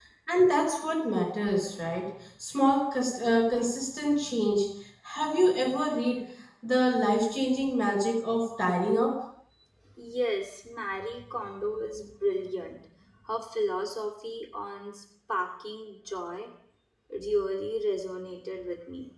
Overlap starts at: none

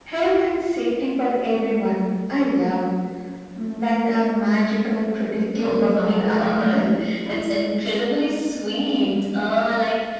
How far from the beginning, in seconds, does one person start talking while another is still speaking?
5.6 s

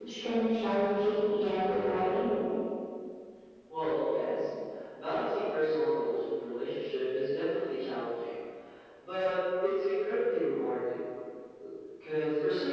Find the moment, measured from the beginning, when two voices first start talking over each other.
none

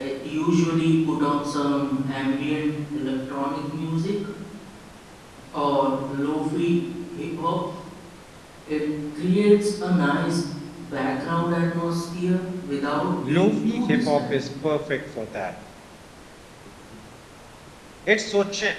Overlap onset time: 13.2 s

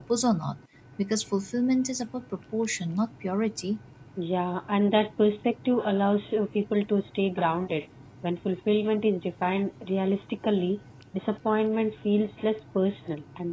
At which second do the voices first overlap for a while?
none

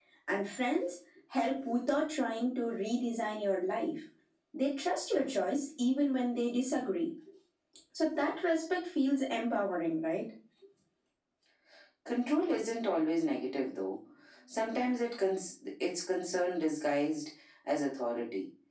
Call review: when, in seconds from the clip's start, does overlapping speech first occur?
none

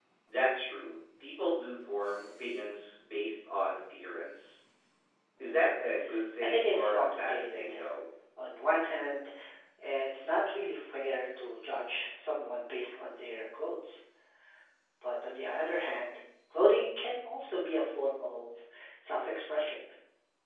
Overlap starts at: 6.4 s

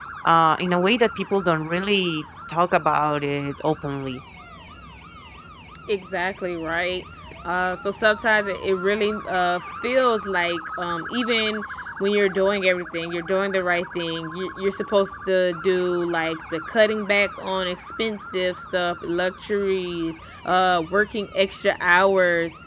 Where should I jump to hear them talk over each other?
none

